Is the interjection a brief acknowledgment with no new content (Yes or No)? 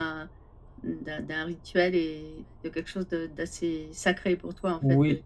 Yes